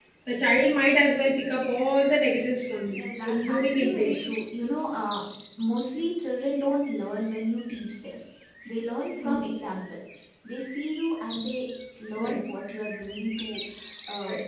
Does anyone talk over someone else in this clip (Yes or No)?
Yes